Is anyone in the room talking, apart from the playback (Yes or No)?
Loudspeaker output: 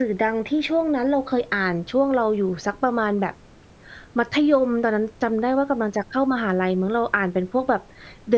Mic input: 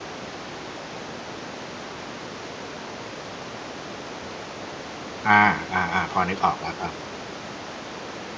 Yes